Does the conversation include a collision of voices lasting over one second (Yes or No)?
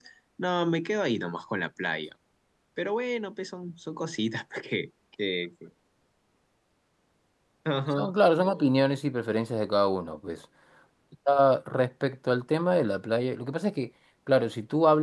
No